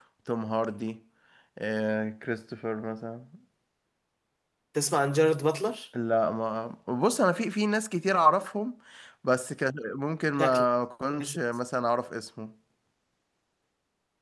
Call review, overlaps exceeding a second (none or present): none